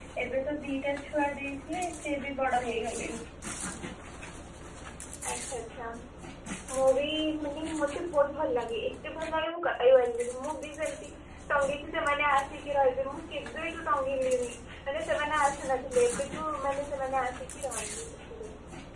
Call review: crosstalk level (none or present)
none